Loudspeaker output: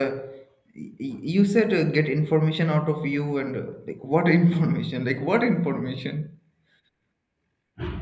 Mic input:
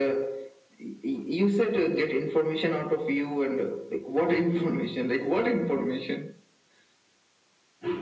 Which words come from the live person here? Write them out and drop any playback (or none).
none